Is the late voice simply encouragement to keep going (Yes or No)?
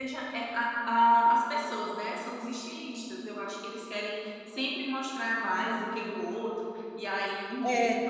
No